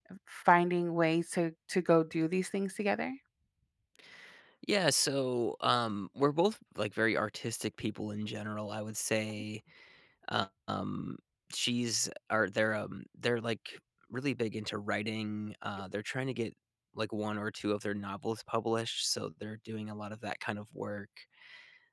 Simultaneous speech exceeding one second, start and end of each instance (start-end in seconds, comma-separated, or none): none